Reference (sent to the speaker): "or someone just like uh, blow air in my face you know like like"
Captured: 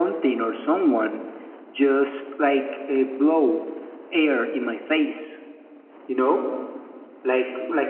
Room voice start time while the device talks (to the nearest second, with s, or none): none